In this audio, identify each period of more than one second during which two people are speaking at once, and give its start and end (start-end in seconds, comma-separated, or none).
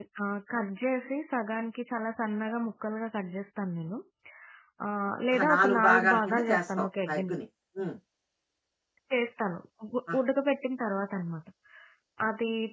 5.3-7.3